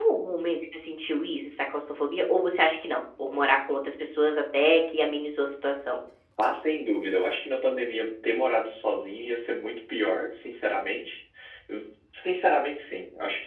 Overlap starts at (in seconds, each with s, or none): none